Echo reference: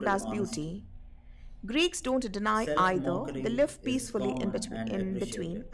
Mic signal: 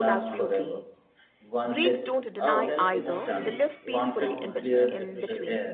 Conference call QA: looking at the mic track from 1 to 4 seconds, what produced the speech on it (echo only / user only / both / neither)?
both